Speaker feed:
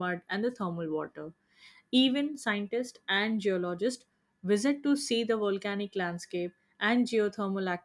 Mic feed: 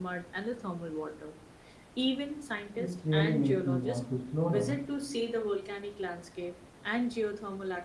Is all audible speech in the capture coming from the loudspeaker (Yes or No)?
No